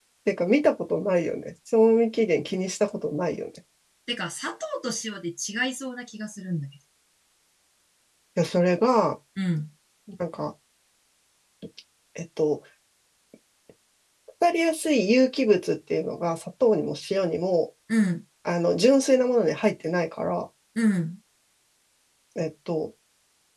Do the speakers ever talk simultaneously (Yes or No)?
No